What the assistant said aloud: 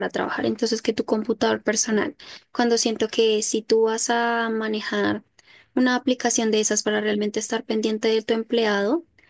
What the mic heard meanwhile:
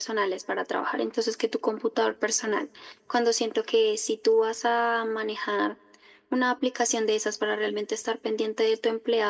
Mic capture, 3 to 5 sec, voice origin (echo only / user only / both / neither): echo only